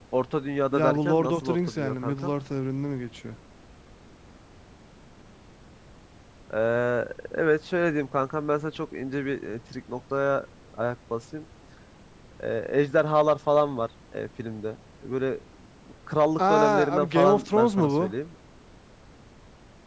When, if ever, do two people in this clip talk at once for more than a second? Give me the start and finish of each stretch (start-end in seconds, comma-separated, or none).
0.7-2.3, 16.5-18.0